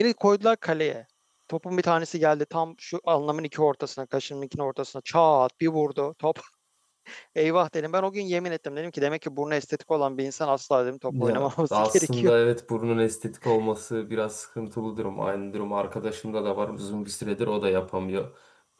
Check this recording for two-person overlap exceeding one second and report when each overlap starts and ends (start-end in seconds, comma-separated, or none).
11.1-12.3